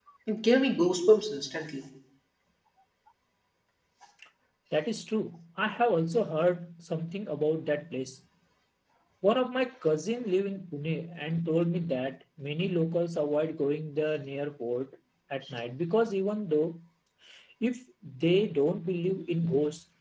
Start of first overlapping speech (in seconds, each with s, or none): none